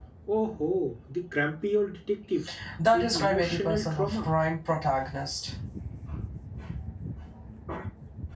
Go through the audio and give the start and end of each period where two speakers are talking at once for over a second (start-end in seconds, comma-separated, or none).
2.9-4.3